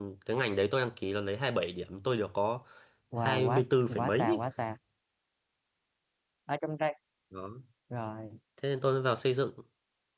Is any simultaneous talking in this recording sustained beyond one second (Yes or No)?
Yes